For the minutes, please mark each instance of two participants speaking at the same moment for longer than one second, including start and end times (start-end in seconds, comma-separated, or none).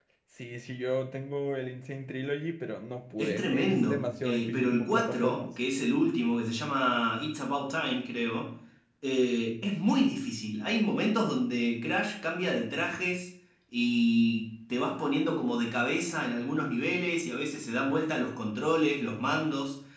3.2-5.5